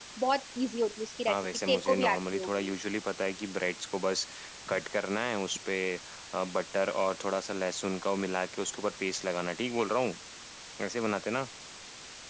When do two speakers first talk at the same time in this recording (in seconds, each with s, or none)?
1.3 s